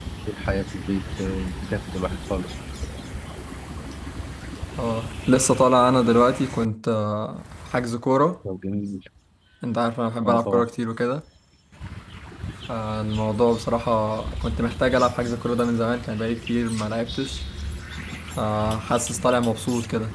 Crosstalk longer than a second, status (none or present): none